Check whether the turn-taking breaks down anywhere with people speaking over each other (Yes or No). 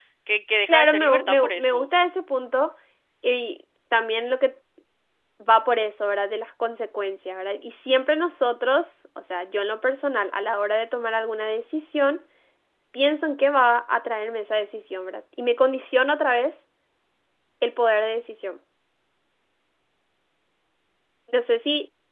Yes